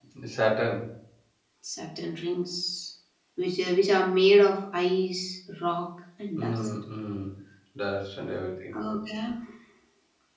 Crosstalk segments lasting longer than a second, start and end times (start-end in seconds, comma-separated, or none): none